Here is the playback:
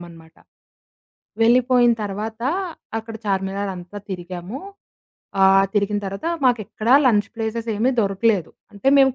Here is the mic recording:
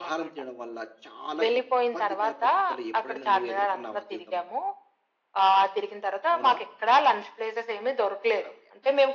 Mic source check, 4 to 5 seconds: both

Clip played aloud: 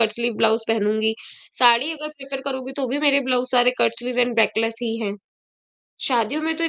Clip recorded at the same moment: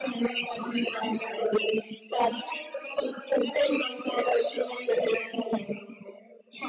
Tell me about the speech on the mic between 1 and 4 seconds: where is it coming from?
echo only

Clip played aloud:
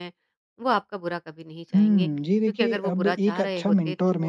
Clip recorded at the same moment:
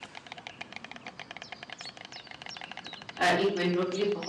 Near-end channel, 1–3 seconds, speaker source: neither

